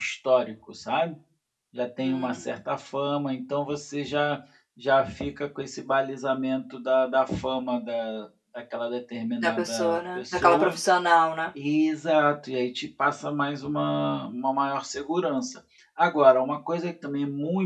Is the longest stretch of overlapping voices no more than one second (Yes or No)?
No